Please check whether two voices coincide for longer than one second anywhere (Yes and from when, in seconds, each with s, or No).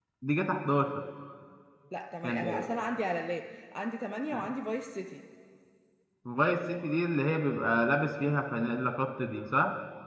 No